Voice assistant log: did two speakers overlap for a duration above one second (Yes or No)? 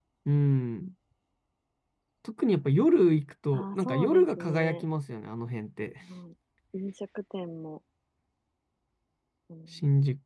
Yes